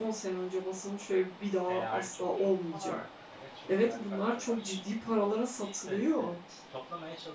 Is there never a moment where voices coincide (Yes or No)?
No